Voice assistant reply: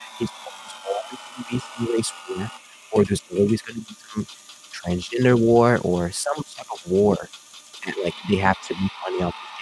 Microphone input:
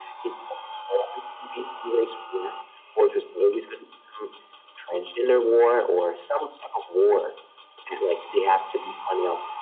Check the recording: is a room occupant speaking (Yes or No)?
No